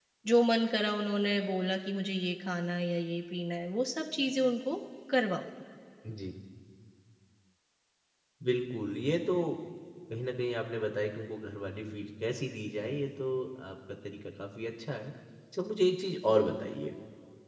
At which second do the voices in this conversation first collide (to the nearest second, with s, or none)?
none